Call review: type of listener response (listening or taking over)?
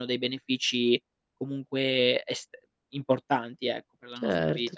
taking over